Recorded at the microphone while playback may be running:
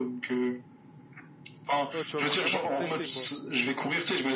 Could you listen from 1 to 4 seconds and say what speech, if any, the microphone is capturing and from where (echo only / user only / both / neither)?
both